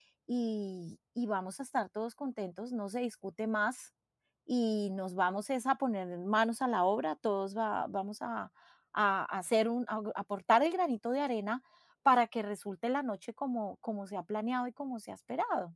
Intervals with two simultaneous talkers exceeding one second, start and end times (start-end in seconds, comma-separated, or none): none